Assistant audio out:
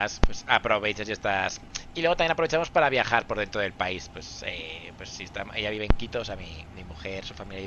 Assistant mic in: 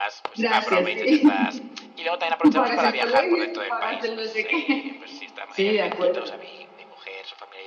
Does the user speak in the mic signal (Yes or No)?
Yes